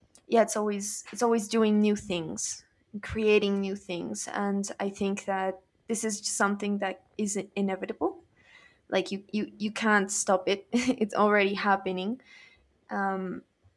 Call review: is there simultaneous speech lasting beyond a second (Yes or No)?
No